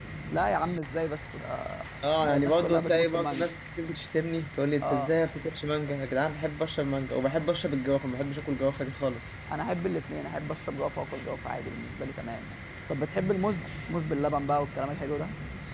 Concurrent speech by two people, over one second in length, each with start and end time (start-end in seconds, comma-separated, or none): 2.2-3.5